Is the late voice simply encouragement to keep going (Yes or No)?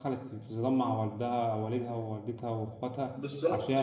No